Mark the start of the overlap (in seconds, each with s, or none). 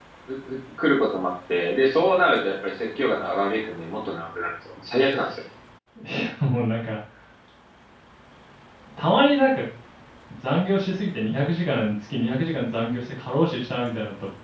none